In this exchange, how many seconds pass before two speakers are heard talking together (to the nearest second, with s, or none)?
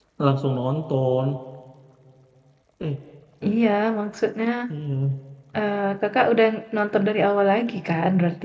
none